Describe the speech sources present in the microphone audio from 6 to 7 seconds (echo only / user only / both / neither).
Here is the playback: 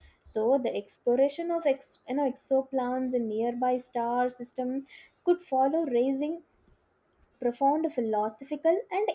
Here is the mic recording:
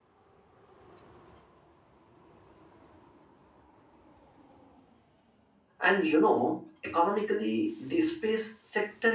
user only